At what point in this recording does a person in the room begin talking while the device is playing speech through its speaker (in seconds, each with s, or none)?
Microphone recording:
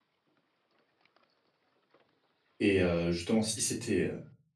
2.6 s